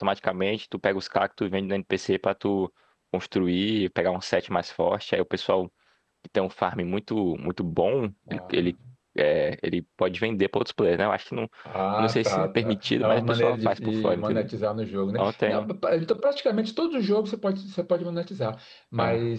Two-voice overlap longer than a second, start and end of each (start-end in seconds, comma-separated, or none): 12.0-14.5